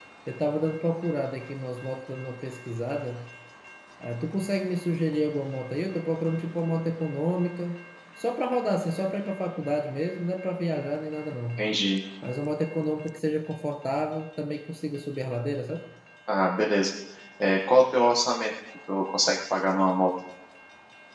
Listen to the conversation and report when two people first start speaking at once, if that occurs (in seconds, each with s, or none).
none